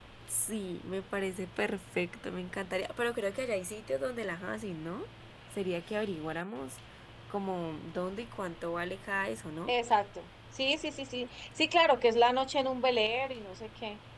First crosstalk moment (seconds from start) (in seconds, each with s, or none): none